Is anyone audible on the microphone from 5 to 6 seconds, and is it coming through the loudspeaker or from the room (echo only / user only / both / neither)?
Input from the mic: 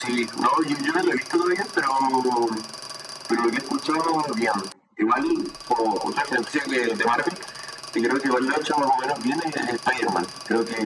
echo only